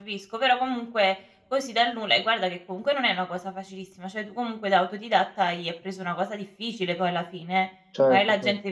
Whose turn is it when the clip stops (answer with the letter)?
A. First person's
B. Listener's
A